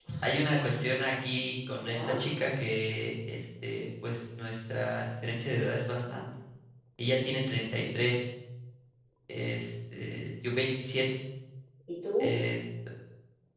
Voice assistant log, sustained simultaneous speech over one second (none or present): none